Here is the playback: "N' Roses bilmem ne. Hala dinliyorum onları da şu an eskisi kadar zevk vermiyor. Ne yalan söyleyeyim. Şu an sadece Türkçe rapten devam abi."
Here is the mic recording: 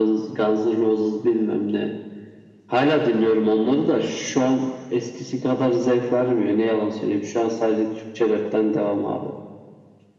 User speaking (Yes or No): No